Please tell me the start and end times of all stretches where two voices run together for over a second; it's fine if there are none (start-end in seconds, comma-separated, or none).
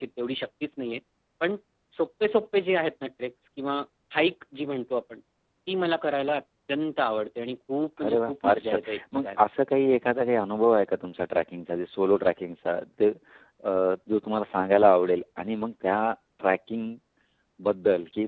8.1-9.4